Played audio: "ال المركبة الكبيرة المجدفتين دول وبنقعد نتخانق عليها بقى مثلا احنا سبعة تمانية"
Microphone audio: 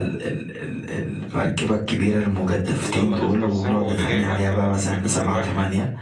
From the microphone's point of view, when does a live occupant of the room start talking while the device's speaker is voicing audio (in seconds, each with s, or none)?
2.8 s